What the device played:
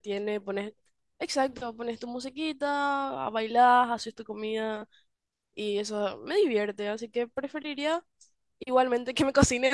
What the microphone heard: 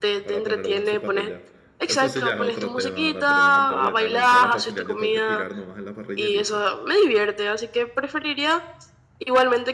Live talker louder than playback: No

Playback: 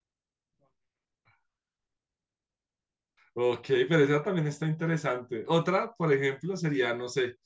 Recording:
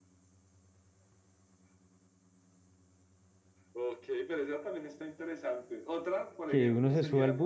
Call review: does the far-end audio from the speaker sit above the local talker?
No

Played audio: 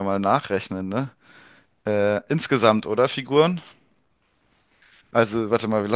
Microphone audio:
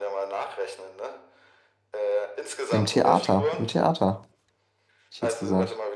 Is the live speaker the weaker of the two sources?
No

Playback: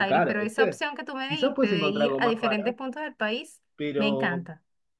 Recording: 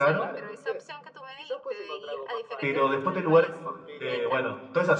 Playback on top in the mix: No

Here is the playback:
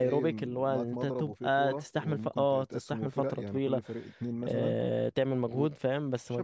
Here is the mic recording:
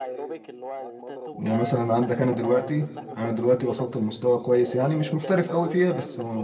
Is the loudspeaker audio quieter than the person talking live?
Yes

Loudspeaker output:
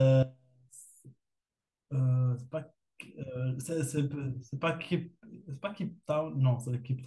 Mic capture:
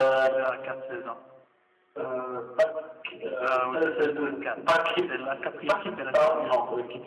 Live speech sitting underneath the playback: Yes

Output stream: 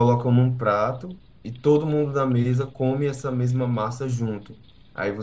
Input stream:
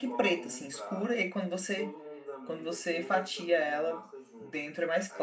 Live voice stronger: Yes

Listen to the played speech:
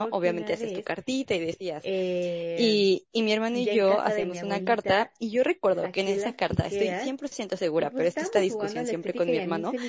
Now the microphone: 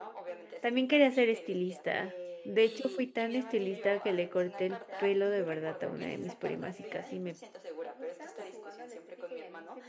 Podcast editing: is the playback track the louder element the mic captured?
No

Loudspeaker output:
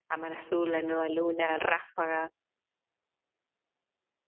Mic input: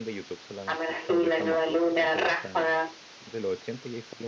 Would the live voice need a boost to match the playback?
Yes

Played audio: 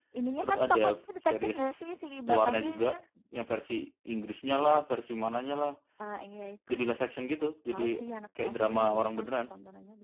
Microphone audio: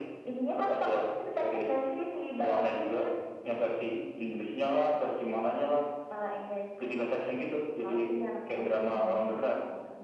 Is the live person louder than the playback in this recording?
No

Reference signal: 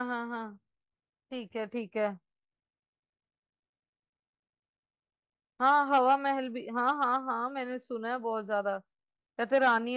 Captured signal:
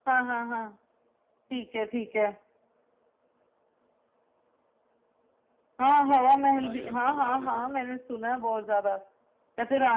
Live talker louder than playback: No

